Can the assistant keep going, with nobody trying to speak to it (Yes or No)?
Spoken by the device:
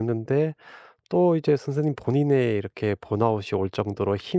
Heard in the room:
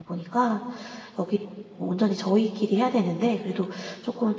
No